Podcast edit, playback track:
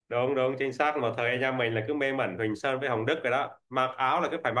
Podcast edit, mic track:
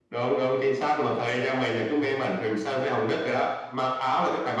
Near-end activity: none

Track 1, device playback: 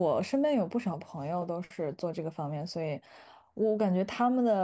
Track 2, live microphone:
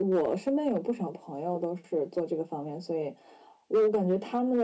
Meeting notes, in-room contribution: none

